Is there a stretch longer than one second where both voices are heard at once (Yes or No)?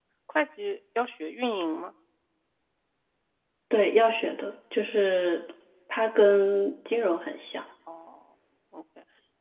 No